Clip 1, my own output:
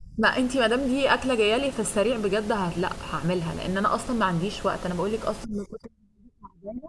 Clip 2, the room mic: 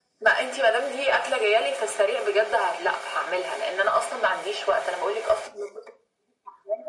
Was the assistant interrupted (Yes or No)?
No